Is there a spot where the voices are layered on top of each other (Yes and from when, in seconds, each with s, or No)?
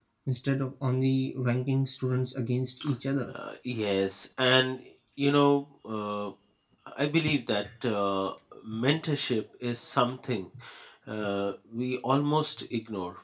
No